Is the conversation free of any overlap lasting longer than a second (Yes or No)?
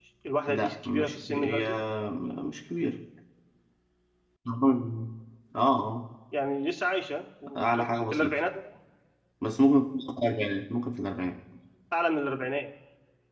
No